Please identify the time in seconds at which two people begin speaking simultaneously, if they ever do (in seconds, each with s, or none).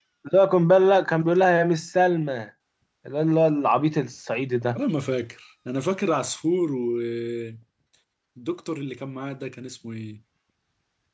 none